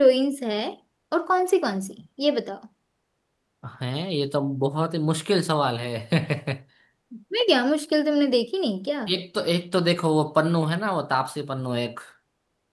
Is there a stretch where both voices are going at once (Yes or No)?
No